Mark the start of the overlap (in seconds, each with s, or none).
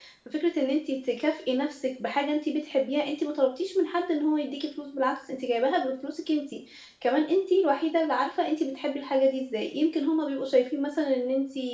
none